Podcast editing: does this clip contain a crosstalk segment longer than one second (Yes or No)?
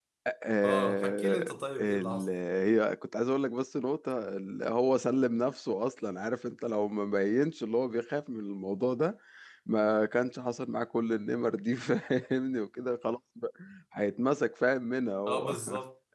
Yes